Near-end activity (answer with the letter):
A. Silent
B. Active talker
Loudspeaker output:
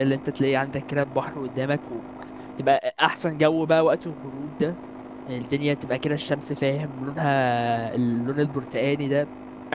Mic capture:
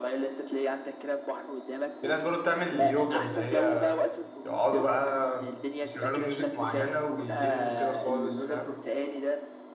B